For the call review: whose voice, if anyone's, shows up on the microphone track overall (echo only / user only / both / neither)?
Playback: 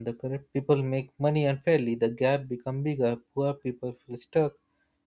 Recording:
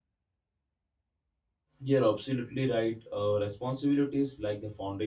user only